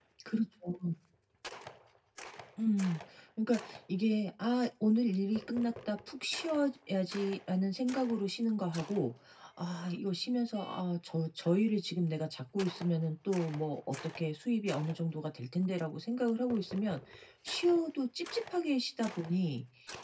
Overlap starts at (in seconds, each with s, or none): none